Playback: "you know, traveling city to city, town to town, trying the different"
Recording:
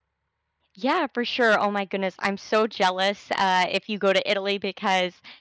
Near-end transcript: Yeah, for sure. Oh my goodness, I'm so jealous uh, if you go to Italy because

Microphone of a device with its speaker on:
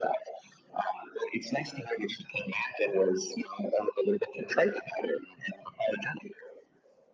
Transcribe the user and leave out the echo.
none

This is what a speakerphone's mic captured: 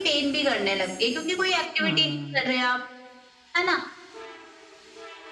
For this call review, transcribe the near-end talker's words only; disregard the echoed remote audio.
हाँ,

